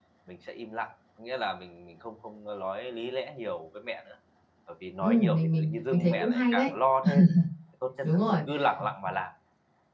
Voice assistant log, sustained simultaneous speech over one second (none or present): present